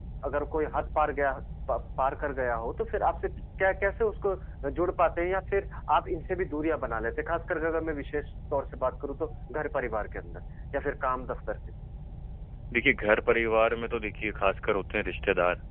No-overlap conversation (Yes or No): Yes